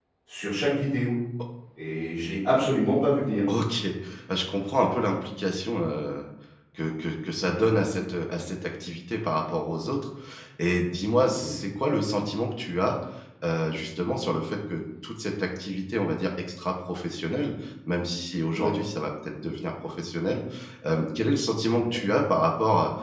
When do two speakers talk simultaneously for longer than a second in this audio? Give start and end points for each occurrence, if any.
none

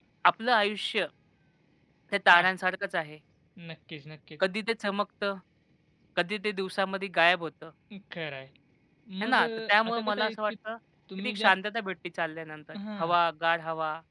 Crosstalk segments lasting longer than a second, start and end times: 9.2-10.5

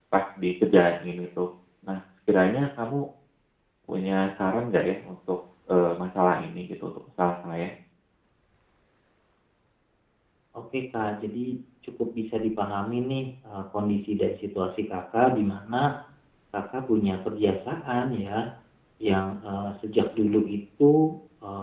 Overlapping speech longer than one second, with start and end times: none

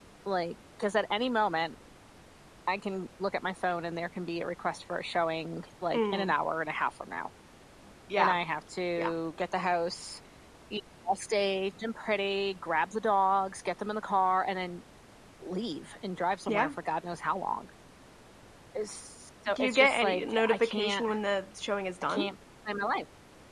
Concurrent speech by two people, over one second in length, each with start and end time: 19.5-21.1

